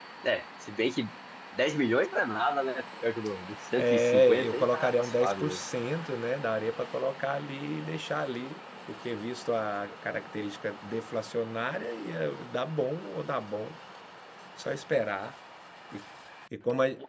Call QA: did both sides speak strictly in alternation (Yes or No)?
No